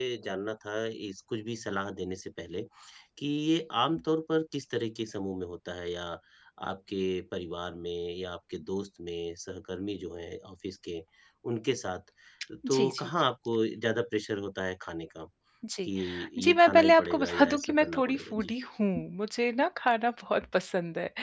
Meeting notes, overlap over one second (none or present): present